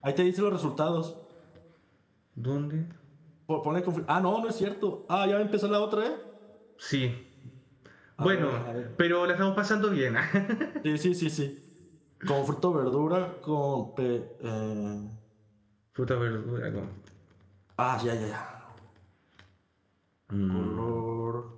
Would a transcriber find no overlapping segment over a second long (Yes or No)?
Yes